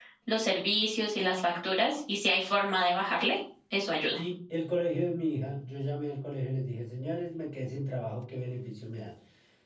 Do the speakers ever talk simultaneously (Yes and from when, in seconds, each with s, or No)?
No